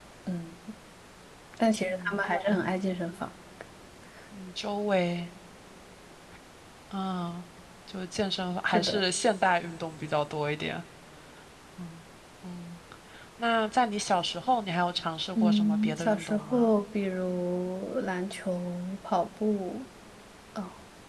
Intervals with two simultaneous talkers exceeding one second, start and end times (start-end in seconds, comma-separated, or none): 15.3-16.7